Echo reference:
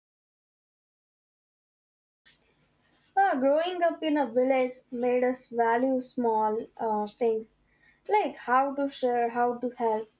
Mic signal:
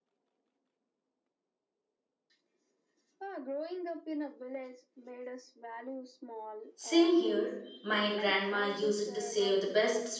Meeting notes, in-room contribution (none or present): present